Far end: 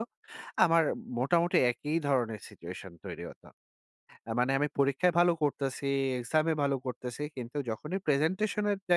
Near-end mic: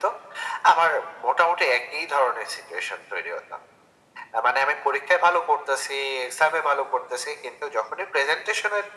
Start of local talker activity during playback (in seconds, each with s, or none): none